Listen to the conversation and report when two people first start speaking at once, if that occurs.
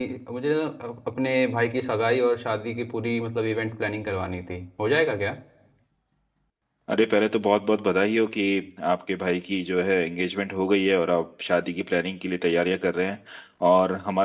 none

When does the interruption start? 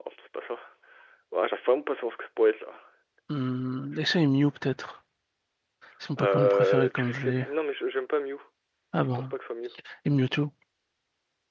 6.2 s

